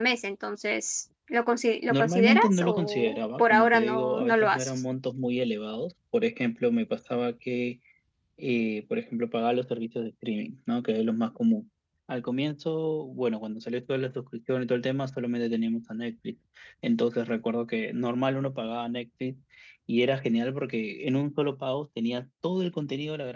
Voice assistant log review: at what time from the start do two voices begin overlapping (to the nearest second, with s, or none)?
2 s